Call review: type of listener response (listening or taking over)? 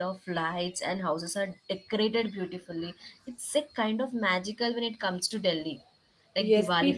taking over